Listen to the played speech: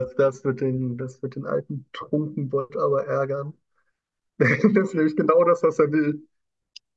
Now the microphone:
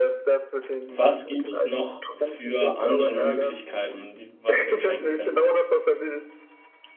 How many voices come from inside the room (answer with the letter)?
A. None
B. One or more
B